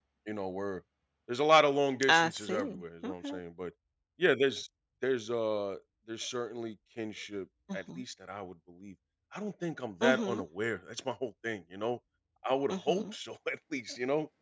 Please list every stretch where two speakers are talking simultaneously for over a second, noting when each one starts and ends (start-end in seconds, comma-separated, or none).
2.1-3.3